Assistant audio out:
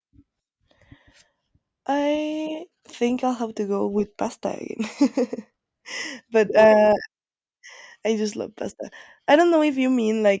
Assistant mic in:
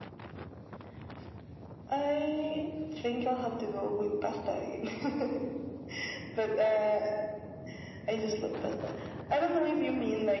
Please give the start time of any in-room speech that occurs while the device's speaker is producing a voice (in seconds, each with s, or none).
none